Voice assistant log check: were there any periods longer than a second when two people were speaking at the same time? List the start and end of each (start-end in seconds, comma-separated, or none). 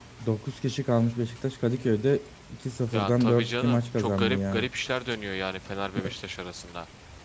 2.9-4.7